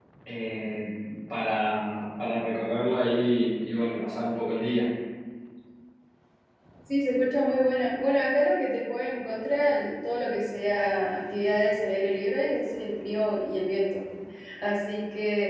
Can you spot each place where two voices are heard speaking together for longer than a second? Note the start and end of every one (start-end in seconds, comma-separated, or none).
none